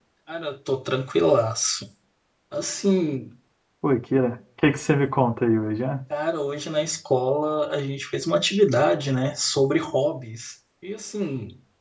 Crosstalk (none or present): none